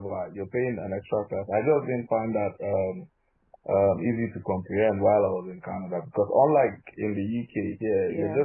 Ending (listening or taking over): listening